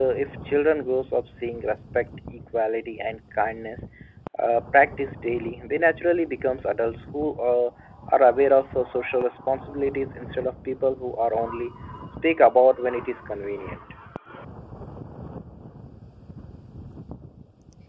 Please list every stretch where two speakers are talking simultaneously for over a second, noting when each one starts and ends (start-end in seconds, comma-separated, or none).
none